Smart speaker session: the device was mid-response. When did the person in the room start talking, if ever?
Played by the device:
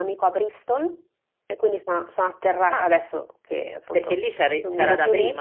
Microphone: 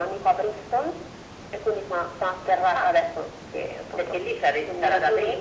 none

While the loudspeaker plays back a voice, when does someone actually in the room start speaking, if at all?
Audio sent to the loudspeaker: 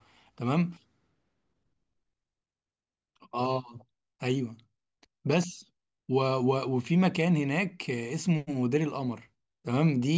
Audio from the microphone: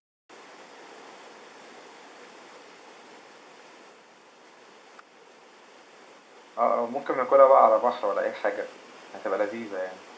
6.6 s

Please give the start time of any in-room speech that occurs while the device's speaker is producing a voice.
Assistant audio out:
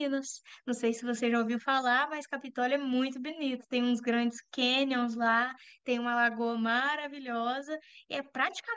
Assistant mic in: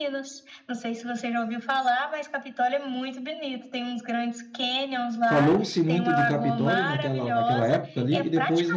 5.2 s

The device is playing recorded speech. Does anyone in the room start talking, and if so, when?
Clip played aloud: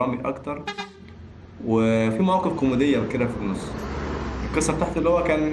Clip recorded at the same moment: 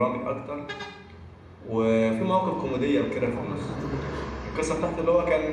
3.3 s

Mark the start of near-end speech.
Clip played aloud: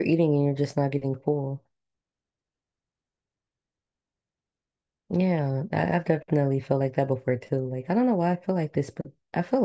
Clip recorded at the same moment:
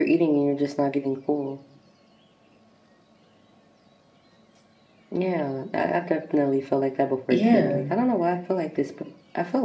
7.3 s

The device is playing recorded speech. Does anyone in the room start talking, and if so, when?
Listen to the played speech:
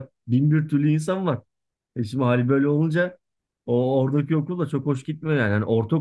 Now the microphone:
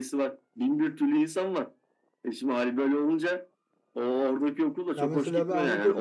5.0 s

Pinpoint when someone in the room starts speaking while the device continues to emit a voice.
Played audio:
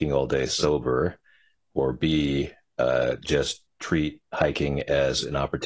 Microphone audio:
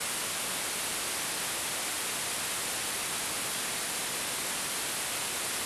none

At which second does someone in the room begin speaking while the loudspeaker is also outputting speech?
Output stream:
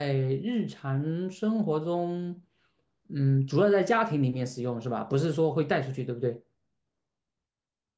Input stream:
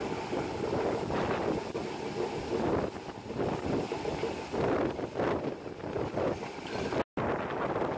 none

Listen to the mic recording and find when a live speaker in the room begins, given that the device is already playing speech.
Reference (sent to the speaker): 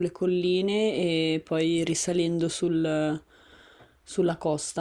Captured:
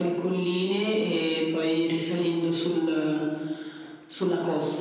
none

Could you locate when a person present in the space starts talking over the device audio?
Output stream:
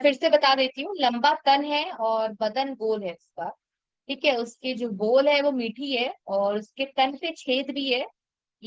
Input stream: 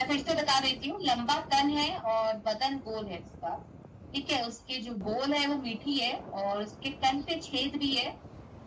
none

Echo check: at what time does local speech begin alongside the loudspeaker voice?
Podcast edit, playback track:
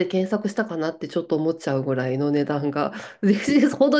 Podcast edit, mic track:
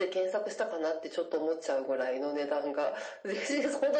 none

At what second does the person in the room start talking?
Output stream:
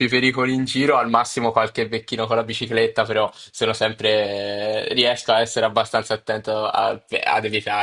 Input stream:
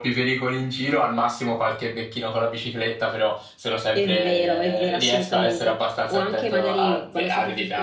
3.9 s

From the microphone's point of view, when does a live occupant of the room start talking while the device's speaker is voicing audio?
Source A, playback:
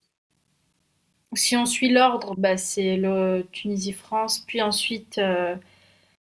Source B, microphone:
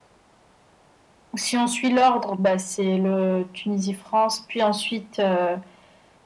none

